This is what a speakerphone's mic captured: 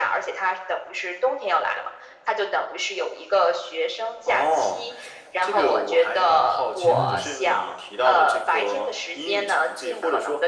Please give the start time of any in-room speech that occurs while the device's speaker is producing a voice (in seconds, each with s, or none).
6.8 s